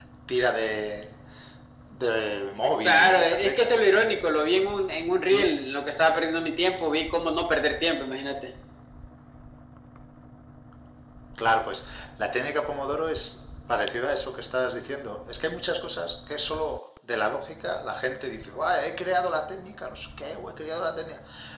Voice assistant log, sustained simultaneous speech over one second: present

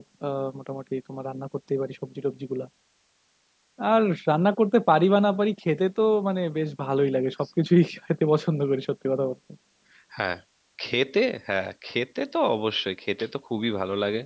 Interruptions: none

